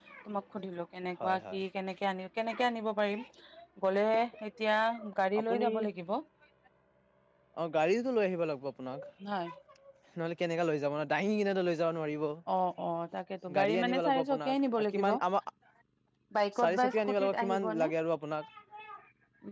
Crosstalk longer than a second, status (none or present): present